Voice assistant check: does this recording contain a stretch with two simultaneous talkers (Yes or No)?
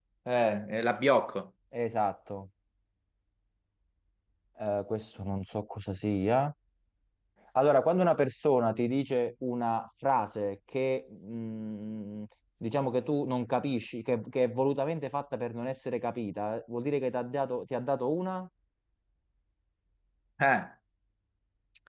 No